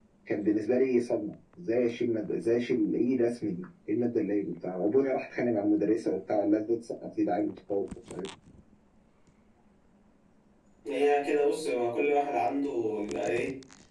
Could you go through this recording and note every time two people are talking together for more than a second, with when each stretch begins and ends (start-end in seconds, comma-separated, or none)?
none